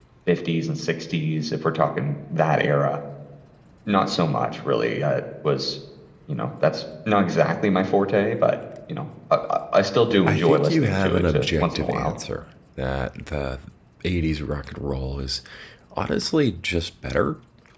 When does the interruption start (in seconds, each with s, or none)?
10.3 s